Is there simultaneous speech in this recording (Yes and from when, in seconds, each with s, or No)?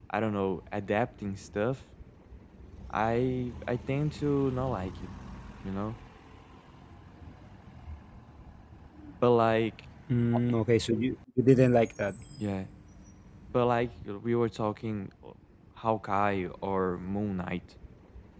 No